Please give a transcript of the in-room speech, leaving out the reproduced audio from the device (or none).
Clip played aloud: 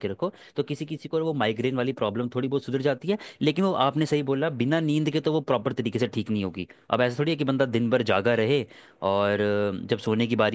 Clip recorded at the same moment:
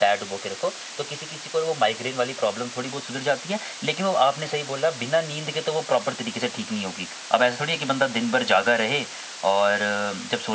none